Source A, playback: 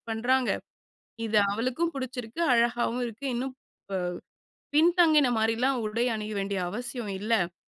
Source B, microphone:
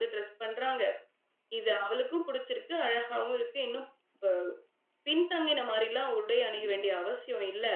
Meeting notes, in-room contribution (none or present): present